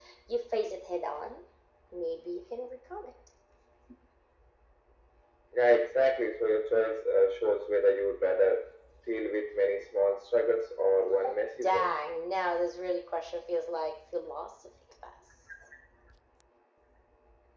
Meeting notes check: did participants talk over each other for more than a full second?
No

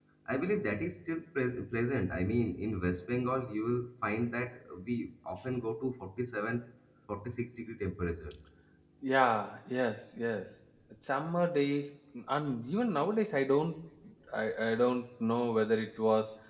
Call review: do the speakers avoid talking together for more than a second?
Yes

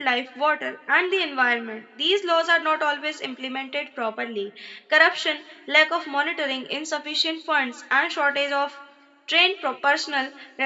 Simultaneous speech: No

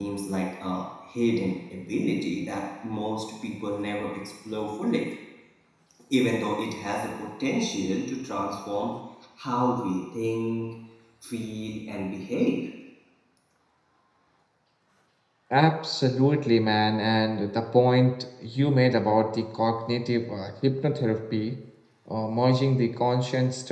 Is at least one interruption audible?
No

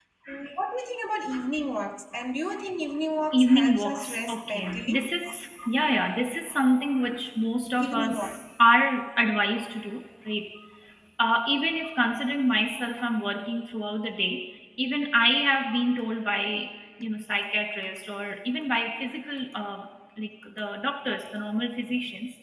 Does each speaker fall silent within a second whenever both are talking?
No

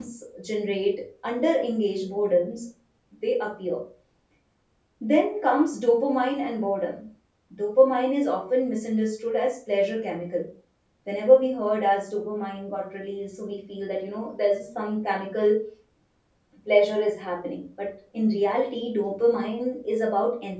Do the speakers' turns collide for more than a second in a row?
No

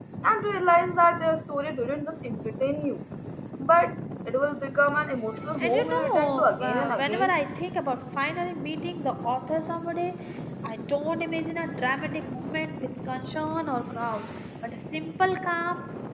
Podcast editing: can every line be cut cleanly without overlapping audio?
No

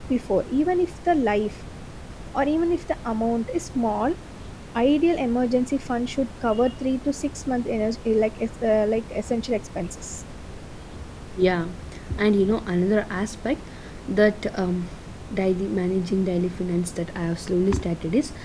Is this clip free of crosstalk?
Yes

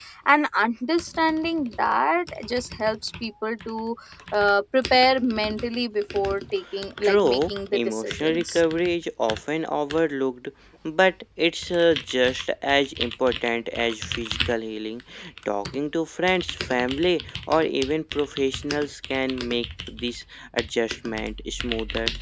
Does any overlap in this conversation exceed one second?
Yes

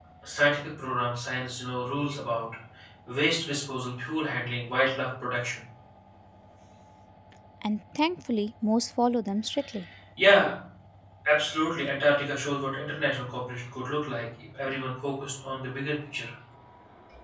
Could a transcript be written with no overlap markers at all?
Yes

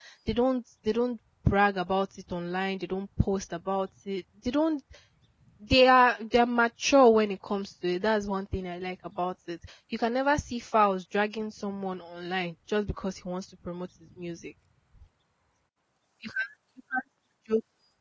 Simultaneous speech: No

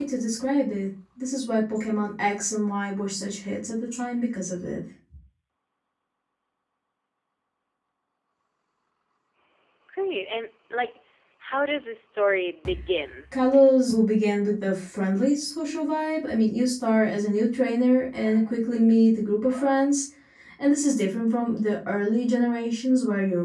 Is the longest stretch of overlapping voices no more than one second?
Yes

